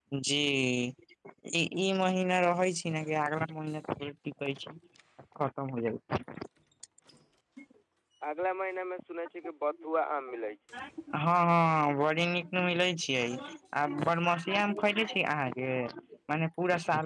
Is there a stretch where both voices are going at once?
No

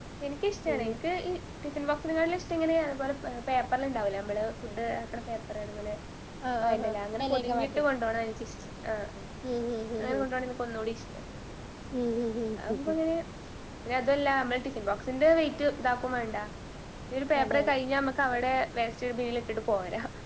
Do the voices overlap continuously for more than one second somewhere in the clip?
Yes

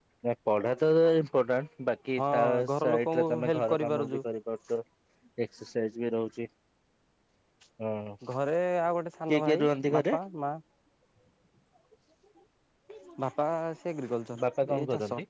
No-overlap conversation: No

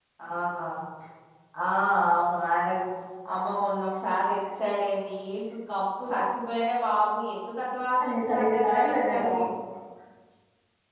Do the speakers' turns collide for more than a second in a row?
Yes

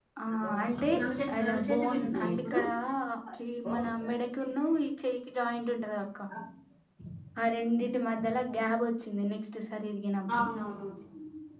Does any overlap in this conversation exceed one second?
Yes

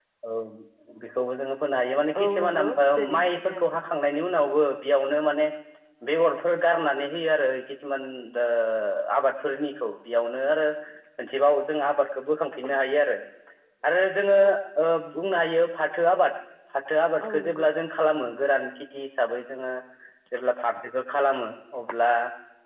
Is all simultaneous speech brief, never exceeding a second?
No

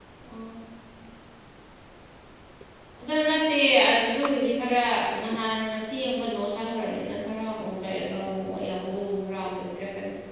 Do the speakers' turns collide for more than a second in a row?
No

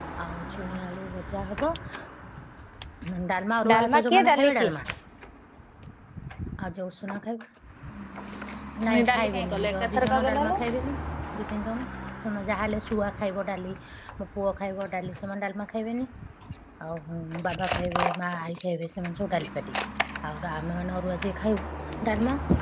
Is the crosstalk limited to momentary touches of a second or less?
No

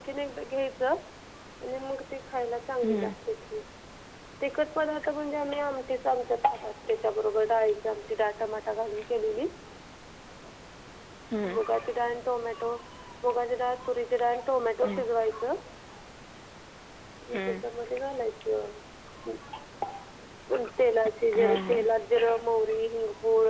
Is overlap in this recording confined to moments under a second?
Yes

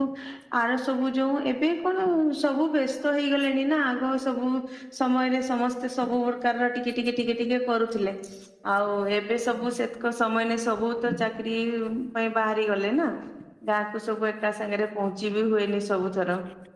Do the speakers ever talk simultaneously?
No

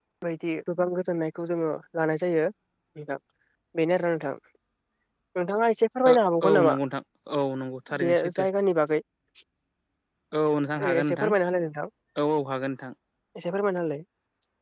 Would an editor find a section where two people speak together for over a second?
No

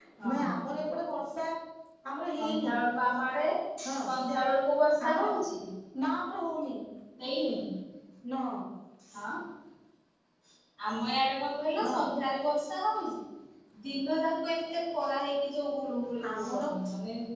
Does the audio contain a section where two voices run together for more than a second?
No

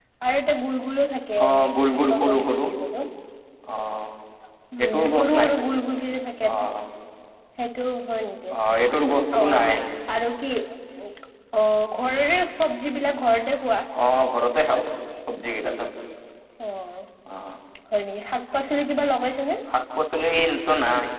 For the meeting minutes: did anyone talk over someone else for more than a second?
Yes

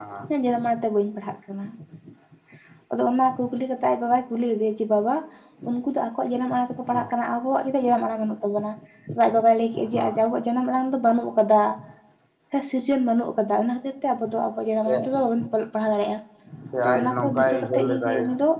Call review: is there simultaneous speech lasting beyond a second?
Yes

